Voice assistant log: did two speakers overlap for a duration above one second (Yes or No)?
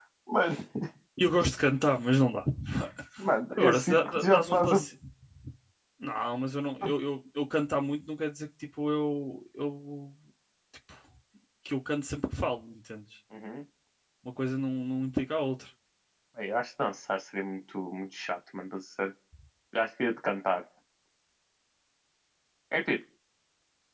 Yes